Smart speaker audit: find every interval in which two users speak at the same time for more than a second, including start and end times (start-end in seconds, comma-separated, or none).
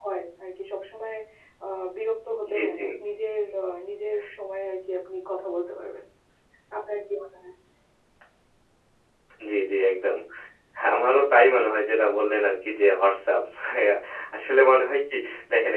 none